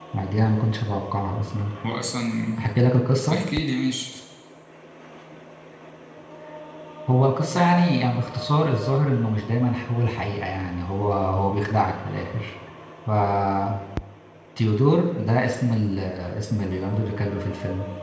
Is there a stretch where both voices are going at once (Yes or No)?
No